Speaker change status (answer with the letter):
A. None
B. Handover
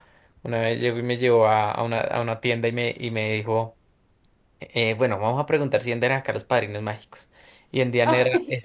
A